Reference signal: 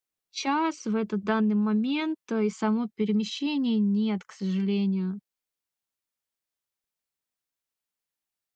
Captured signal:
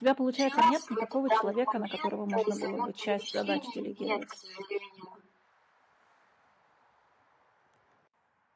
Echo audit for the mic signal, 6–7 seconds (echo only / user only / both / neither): neither